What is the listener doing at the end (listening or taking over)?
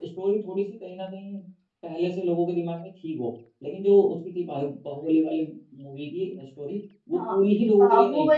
taking over